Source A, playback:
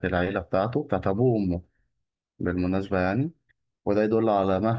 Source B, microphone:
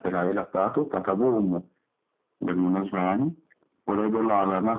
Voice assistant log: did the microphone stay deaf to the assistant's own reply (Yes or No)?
No